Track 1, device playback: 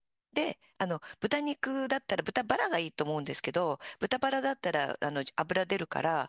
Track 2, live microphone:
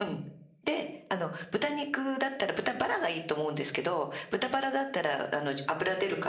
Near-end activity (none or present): none